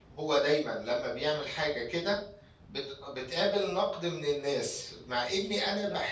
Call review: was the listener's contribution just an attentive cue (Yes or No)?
Yes